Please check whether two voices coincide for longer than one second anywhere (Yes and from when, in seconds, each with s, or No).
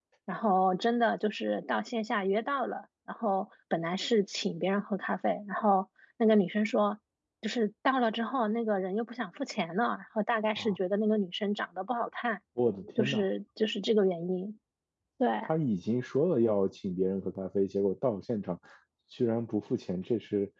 No